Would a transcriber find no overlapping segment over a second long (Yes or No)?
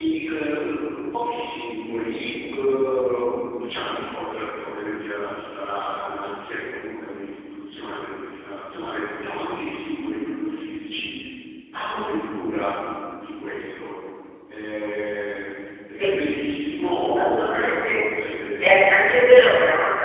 No